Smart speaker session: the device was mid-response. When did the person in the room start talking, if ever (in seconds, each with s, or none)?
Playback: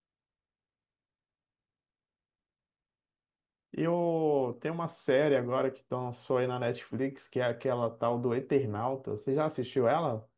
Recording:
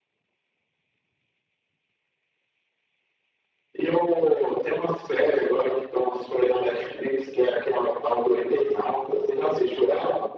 none